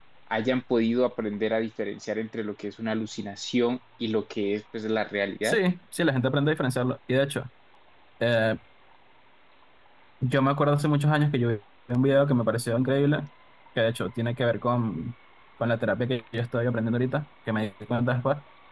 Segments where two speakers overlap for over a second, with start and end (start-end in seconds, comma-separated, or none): none